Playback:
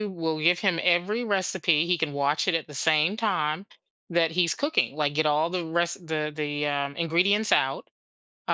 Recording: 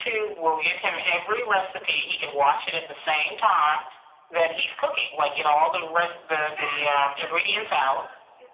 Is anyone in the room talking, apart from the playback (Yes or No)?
Yes